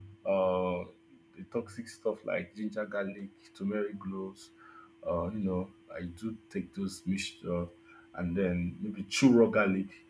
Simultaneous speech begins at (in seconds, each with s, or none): none